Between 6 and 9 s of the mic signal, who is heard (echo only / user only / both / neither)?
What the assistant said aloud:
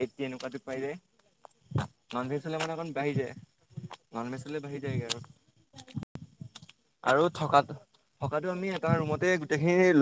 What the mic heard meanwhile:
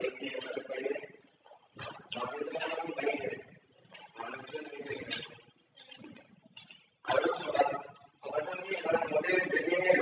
echo only